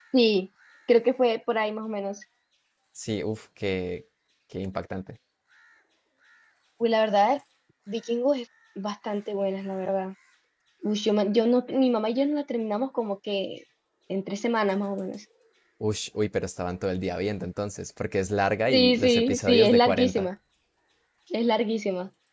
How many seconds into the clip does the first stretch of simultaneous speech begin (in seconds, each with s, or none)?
18.7 s